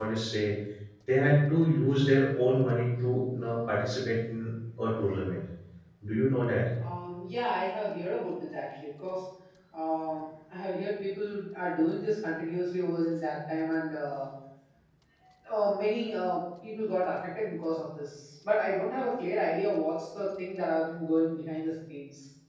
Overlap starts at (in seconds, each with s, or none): none